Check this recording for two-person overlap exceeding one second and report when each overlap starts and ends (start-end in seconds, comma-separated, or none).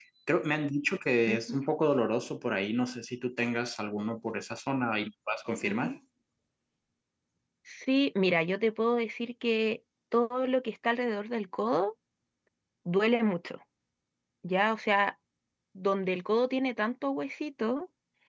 none